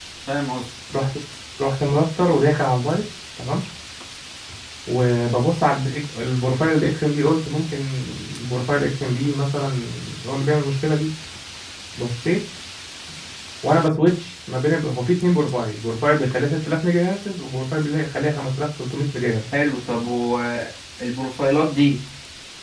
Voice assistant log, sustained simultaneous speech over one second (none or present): none